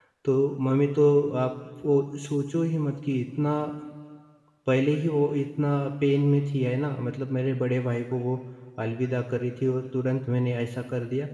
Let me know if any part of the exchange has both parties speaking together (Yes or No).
No